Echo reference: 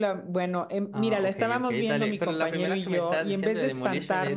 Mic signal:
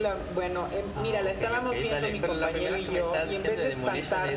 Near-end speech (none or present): none